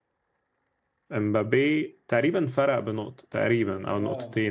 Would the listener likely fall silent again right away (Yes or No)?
No